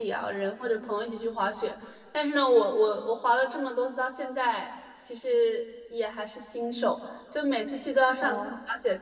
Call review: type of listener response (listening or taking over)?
listening